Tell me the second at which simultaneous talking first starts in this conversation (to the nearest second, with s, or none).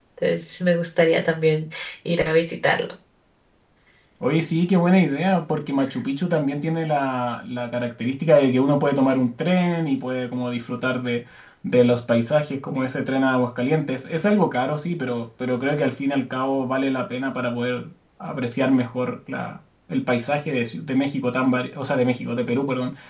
none